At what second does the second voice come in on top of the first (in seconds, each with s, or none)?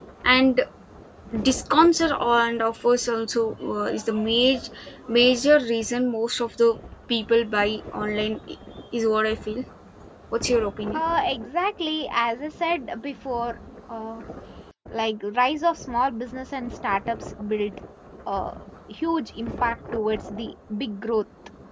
none